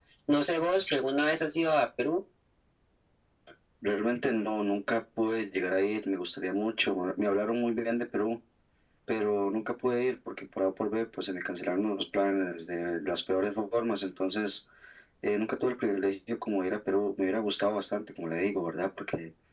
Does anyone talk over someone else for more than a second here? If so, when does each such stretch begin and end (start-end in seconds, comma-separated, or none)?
none